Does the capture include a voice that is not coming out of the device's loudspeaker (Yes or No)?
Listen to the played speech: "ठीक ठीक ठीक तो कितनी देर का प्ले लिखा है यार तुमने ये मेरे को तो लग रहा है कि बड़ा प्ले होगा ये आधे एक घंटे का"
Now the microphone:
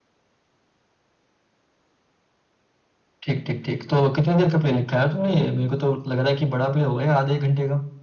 No